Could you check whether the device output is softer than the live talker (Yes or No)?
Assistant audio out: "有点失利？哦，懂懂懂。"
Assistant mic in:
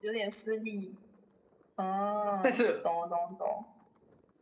Yes